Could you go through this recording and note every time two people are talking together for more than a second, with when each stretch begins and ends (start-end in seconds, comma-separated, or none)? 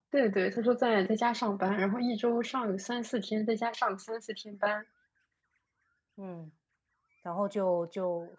none